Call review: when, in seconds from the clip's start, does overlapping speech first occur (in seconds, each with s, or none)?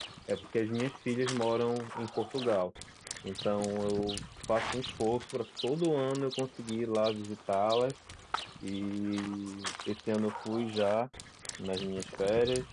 none